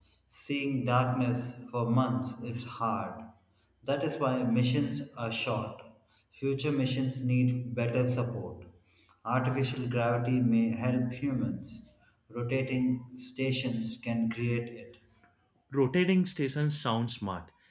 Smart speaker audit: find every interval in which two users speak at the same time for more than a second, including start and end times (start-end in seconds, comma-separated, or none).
none